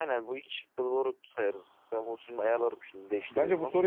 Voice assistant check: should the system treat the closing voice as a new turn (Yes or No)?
Yes